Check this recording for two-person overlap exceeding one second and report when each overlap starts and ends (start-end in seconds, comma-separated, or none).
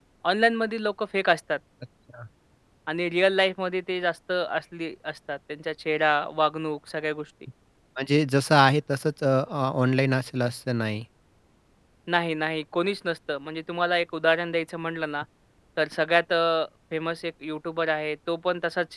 none